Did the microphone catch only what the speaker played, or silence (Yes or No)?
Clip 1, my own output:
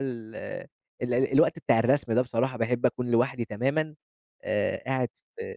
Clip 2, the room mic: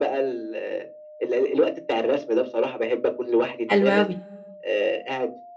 No